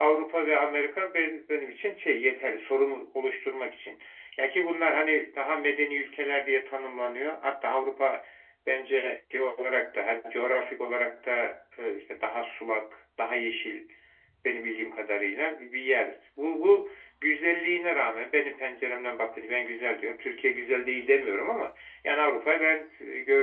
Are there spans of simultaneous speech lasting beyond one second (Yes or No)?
No